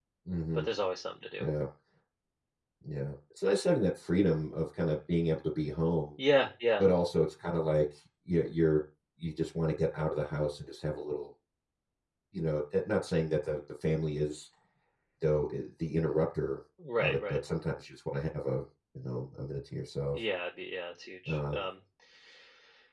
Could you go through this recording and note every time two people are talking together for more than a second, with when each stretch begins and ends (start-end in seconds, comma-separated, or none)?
none